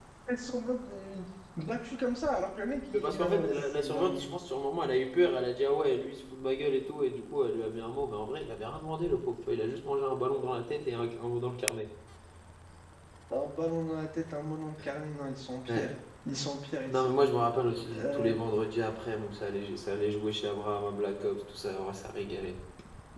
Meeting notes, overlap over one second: present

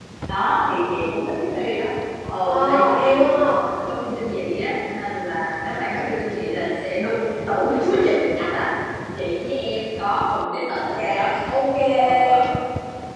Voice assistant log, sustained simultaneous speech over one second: present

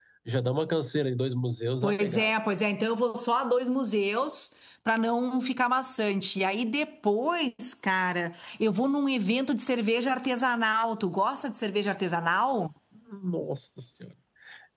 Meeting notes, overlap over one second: none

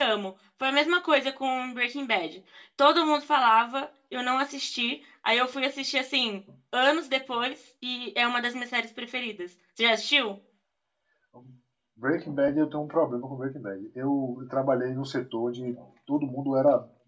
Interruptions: none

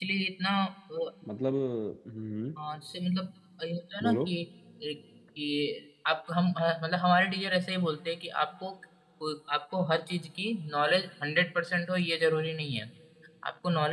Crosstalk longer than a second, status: none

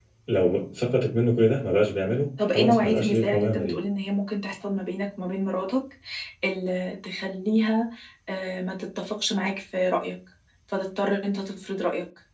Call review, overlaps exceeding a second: present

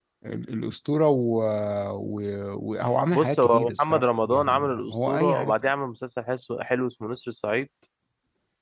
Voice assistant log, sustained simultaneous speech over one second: present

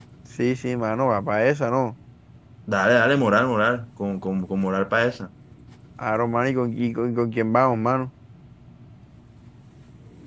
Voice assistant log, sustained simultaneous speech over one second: none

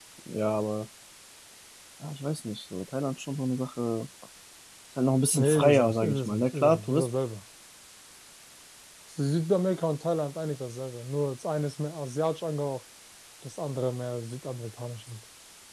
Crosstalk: present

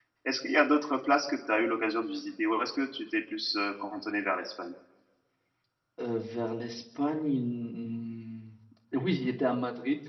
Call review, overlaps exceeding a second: none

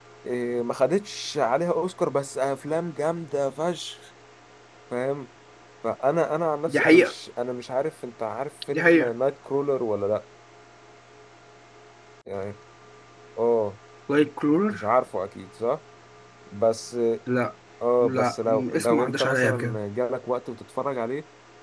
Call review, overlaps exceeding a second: present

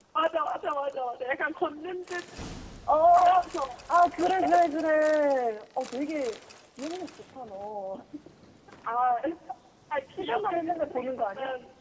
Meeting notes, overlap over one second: present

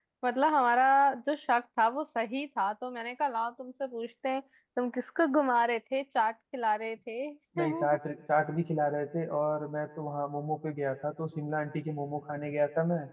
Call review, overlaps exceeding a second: none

